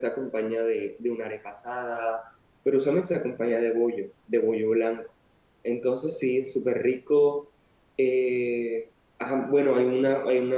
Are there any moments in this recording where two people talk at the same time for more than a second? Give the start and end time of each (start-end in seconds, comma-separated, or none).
none